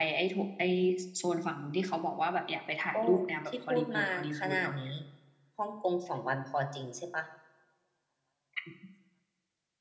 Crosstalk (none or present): present